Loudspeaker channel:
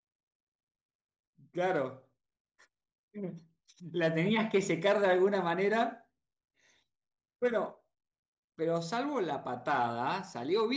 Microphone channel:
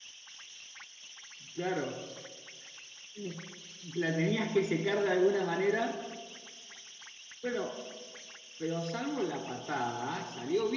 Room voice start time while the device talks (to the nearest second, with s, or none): none